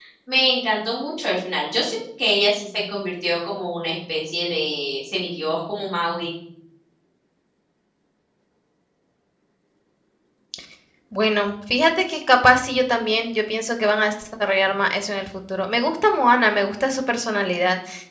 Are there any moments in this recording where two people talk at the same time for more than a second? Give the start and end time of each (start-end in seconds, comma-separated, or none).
none